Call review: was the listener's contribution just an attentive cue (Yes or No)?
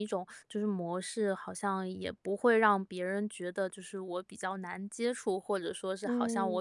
Yes